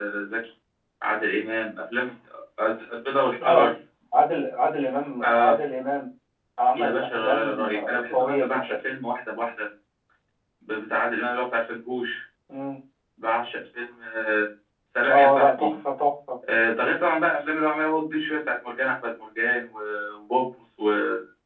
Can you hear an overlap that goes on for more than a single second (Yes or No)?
Yes